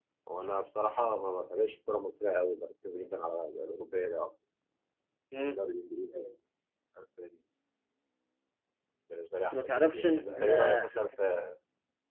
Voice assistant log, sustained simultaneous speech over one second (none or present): present